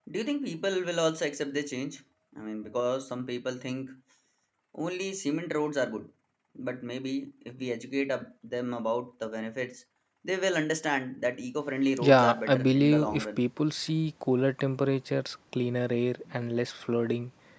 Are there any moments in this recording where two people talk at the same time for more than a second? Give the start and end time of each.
12.1-13.4

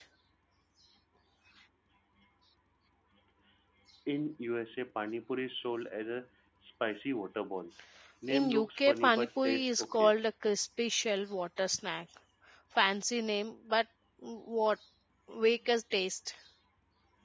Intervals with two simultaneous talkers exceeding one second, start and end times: 8.3-10.1

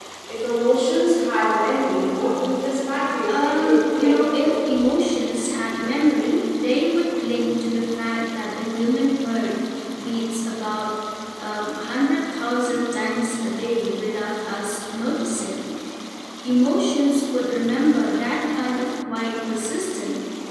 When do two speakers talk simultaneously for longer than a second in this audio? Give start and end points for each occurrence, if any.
3.3-4.5

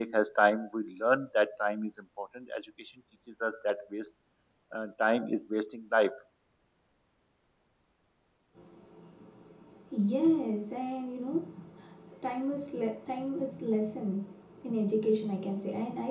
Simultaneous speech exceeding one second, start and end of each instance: none

